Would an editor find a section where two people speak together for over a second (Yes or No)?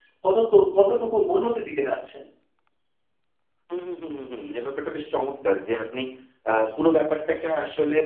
No